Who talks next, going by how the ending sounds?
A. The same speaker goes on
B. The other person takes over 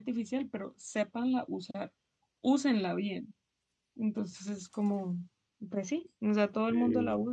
A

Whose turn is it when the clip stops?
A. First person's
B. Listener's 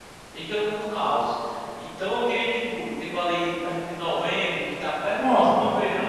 A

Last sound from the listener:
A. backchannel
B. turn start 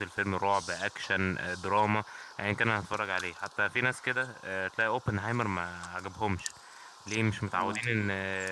A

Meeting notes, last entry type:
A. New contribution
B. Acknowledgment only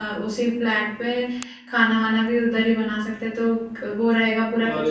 A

